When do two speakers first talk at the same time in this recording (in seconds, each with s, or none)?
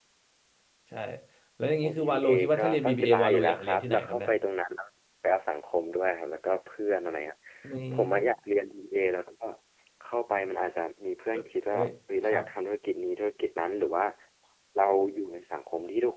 1.8 s